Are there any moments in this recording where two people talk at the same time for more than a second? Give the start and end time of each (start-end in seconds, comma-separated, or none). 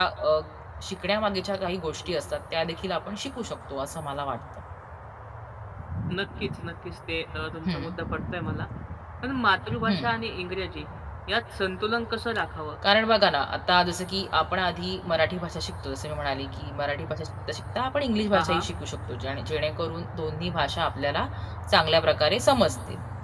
none